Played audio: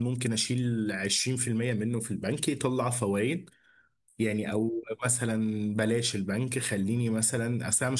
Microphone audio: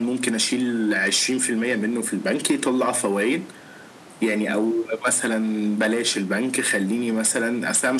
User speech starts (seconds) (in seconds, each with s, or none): none